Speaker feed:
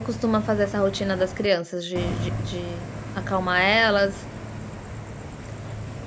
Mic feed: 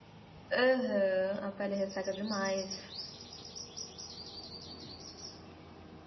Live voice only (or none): Aham, a pele resseca demais.